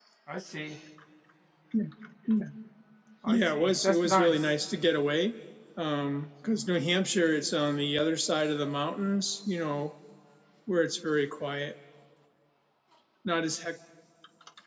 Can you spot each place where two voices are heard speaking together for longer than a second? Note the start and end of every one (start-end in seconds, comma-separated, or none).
3.3-4.5